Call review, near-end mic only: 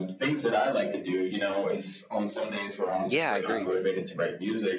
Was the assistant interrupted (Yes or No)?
Yes